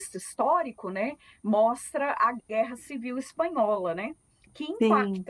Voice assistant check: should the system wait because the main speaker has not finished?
Yes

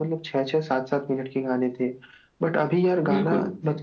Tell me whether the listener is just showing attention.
Yes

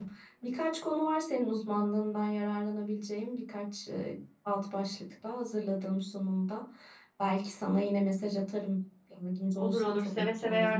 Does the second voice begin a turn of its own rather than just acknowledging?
Yes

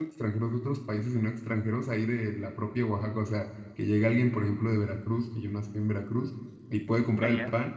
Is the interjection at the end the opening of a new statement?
No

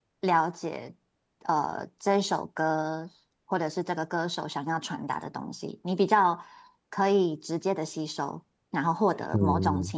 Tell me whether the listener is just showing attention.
Yes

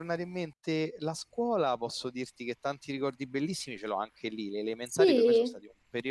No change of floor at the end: Yes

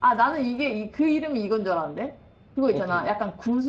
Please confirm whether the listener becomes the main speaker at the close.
No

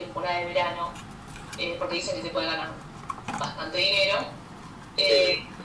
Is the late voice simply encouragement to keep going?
Yes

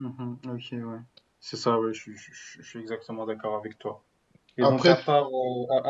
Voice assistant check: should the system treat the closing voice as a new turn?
No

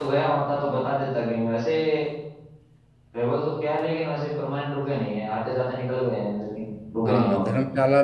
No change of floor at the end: No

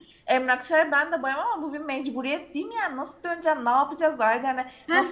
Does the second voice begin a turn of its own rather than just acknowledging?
No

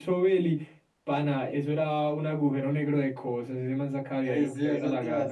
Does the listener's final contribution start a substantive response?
Yes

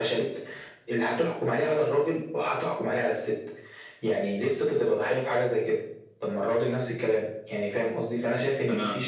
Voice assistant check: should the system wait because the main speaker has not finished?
Yes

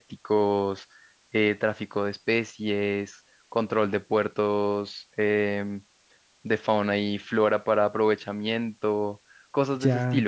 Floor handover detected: Yes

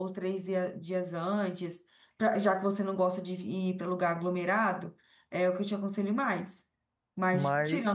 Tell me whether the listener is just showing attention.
Yes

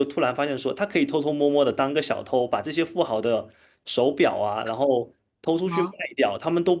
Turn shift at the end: No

